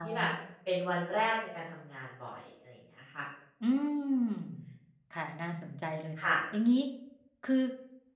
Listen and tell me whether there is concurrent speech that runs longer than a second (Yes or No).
No